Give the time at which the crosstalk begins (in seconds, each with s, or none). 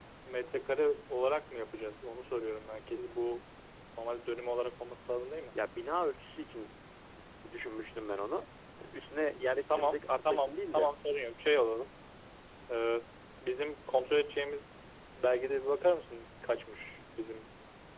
9.7 s